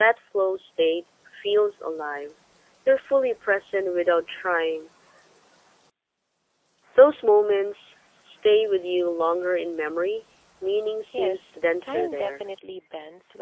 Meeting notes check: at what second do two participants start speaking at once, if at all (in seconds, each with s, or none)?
11.1 s